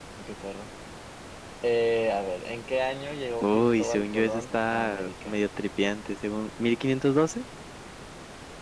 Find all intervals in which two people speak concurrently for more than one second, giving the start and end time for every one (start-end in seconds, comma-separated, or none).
3.4-5.4